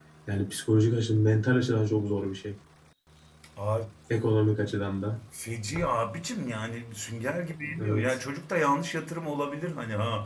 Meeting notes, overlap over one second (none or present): none